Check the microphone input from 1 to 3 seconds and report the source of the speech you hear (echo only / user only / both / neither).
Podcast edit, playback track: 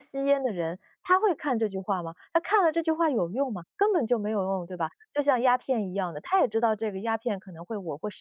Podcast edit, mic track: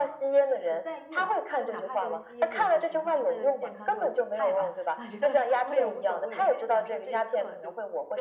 both